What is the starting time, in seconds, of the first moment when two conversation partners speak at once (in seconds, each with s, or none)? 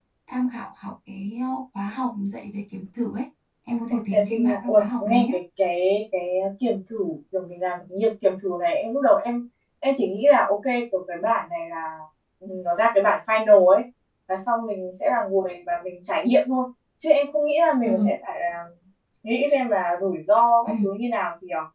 3.9 s